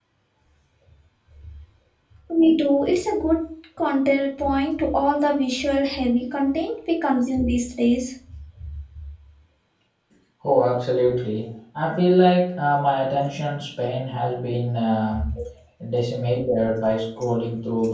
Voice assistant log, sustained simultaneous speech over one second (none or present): none